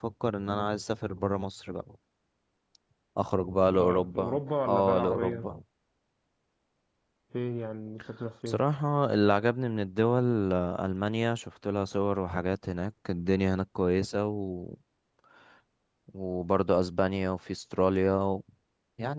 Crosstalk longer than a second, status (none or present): present